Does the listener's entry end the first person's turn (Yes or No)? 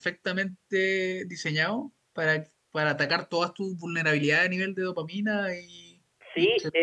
Yes